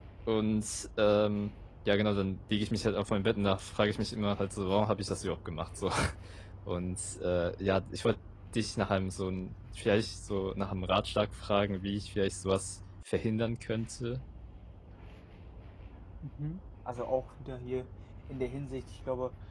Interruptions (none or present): none